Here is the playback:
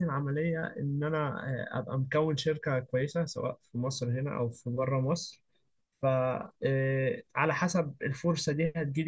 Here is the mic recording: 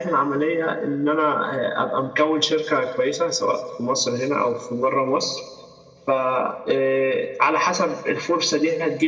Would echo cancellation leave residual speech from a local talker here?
No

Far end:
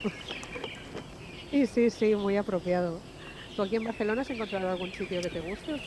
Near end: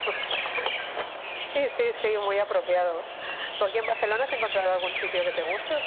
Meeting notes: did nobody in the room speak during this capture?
Yes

